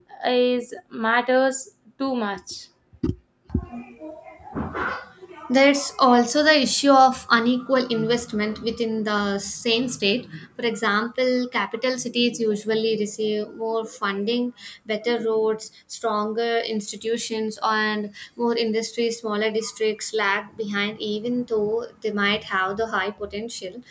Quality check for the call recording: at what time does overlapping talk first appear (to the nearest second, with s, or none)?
none